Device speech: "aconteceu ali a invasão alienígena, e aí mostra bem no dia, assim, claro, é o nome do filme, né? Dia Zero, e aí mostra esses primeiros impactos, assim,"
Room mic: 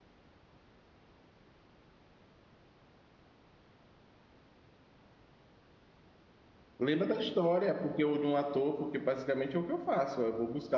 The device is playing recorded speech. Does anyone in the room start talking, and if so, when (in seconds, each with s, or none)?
6.8 s